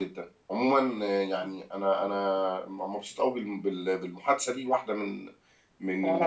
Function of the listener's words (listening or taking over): listening